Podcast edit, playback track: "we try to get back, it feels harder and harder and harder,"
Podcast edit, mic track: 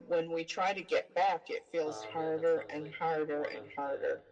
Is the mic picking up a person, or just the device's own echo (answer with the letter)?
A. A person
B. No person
A